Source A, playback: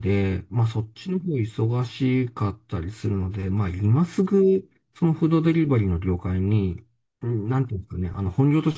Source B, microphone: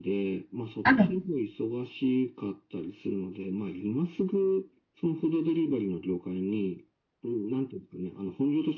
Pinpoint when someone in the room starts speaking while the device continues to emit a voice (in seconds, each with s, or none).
0.8 s